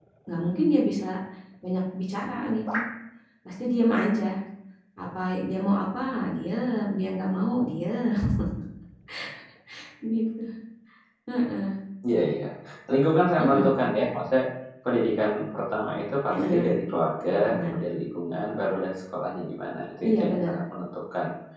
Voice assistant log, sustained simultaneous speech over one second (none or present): none